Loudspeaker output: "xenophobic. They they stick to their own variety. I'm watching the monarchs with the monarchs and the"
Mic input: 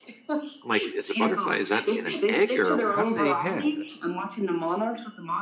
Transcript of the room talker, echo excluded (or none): I'm like, "Is a butterfly is that in an egg, or how do they have?"